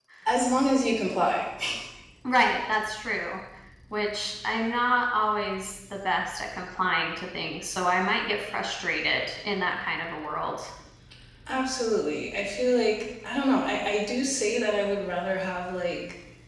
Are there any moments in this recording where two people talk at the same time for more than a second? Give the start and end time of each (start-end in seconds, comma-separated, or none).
none